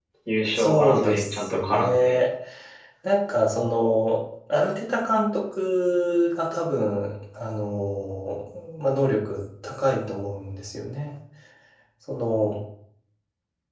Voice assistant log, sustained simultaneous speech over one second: present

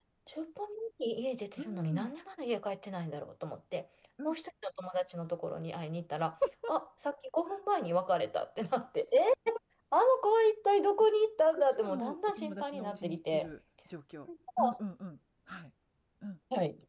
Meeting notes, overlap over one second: present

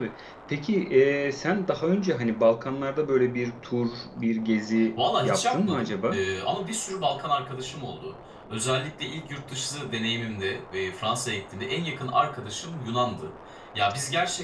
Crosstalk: present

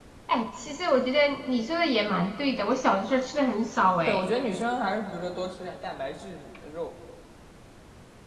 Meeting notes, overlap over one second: none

